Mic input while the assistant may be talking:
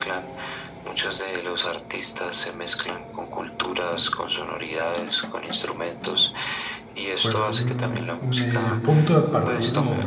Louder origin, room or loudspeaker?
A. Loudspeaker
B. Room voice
B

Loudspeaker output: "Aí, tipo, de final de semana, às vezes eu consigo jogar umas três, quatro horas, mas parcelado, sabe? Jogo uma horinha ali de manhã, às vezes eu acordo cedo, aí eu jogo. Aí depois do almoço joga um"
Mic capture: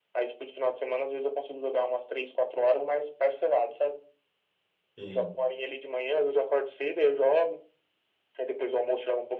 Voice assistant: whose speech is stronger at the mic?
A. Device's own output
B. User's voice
A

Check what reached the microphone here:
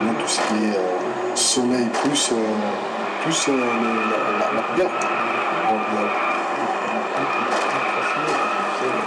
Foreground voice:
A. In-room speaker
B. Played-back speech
B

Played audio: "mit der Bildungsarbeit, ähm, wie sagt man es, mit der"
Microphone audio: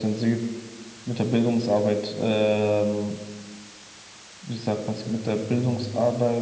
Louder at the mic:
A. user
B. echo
B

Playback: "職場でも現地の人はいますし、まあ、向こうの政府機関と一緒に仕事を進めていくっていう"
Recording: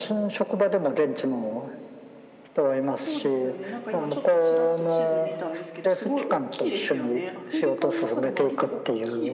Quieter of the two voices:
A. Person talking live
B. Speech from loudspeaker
A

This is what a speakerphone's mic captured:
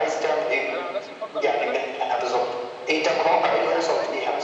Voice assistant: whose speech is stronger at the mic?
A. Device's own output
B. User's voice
A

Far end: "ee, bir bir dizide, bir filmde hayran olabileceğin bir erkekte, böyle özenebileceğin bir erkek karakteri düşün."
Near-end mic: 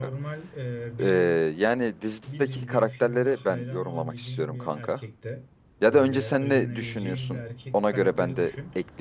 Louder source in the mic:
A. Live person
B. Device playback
A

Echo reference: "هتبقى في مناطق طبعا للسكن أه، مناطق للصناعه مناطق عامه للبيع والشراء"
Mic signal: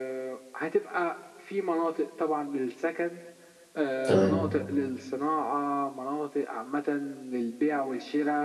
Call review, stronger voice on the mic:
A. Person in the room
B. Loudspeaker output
A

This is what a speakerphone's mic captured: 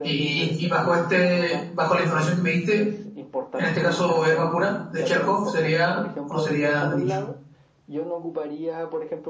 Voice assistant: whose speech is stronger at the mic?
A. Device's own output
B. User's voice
B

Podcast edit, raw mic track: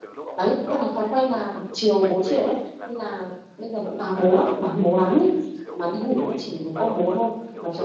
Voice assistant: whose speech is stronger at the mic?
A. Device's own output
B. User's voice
B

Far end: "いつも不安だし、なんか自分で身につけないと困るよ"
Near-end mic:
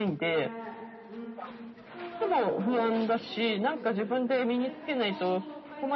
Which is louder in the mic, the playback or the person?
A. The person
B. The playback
B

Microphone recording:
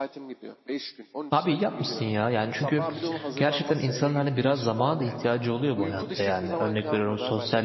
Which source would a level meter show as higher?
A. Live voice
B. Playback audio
A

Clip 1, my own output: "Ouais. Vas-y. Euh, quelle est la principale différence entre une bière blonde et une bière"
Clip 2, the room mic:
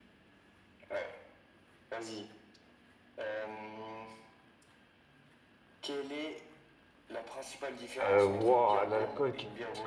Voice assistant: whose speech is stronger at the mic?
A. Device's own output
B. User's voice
B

